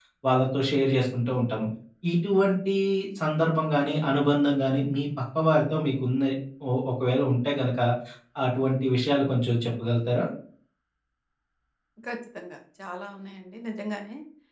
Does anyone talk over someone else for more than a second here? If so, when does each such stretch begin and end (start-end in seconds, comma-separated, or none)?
none